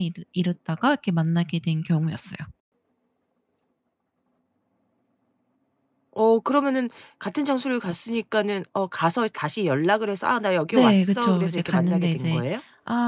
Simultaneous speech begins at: 10.7 s

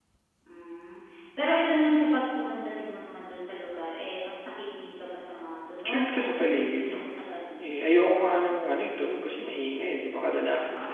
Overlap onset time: 5.8 s

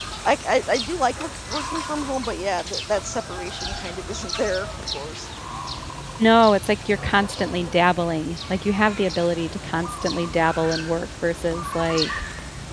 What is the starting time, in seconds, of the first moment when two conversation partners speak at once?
none

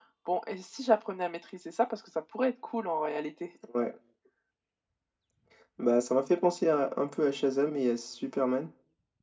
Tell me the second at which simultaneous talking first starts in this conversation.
none

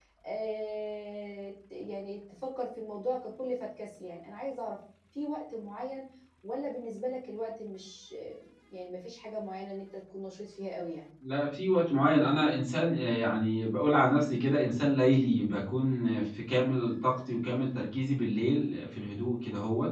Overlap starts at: none

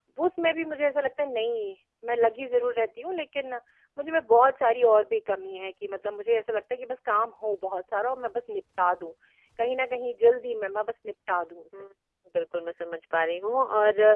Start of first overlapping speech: none

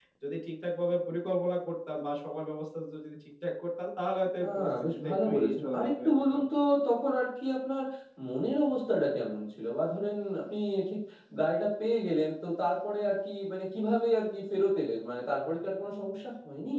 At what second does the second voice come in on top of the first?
4.4 s

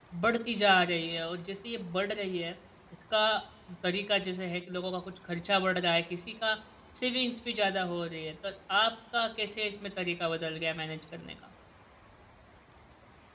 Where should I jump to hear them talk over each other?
none

